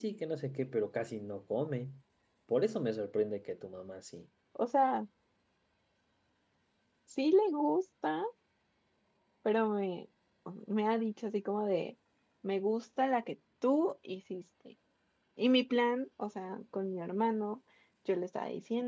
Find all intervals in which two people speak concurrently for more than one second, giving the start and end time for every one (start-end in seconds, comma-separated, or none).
none